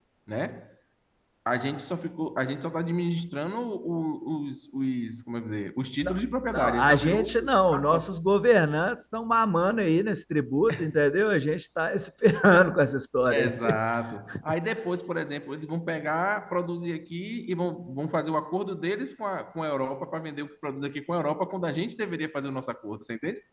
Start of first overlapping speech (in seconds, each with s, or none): 6.0 s